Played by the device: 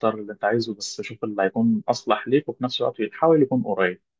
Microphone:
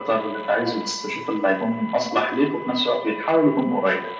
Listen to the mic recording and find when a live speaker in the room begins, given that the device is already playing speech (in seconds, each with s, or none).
none